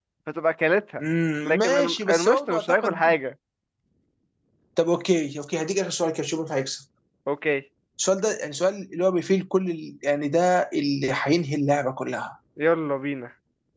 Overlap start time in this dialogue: 1.4 s

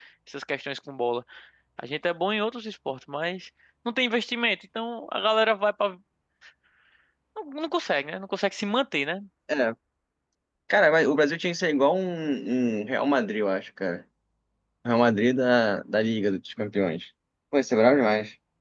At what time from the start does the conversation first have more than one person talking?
none

